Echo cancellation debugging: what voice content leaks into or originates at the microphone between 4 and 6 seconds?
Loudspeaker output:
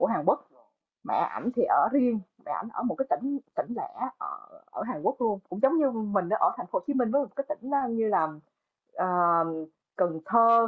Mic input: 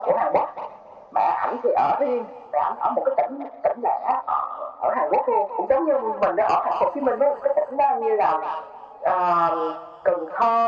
echo only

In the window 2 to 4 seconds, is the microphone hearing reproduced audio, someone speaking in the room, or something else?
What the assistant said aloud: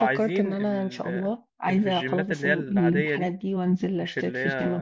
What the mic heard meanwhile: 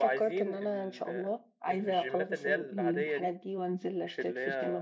echo only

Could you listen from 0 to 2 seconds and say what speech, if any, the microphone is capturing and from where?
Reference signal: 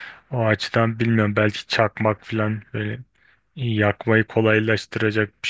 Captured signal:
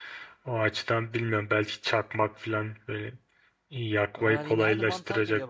echo only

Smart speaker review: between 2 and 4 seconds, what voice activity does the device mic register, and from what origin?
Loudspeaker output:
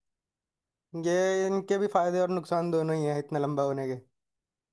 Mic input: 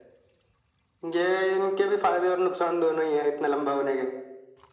echo only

